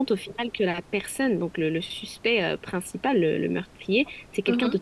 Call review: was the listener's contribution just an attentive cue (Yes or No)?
Yes